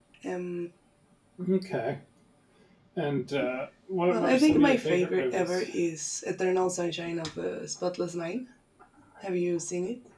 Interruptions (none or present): present